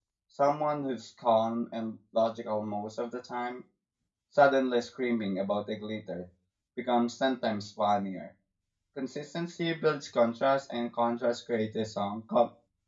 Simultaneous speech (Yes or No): No